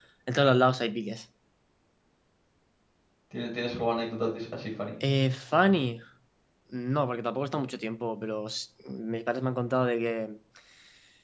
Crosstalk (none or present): none